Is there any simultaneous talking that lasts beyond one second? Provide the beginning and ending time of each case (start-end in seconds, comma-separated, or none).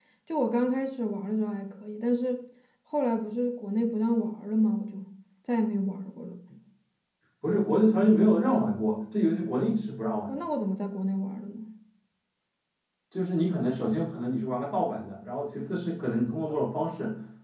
none